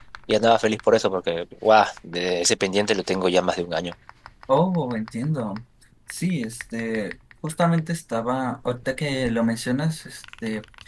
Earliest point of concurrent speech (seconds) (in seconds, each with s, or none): none